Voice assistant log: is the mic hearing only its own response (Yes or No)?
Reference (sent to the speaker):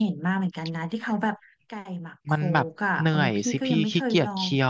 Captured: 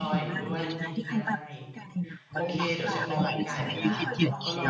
No